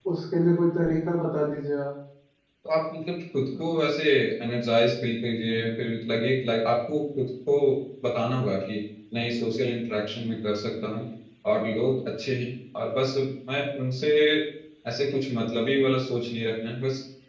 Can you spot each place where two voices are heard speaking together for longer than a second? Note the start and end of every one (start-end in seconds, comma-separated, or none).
none